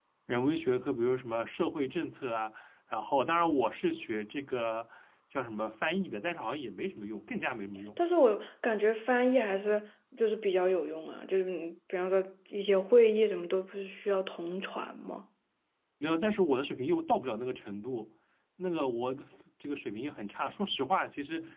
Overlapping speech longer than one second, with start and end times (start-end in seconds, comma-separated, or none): none